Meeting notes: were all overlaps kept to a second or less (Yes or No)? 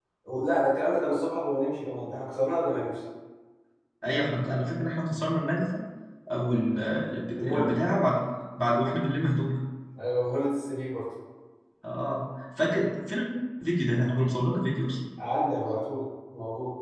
Yes